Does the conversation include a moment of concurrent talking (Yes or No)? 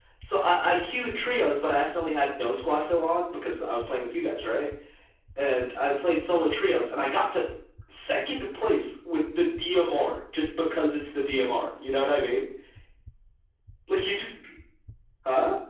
No